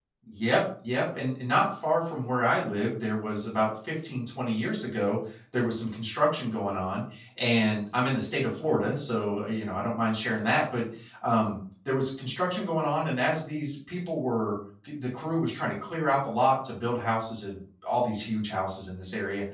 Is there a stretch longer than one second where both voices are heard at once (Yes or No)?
No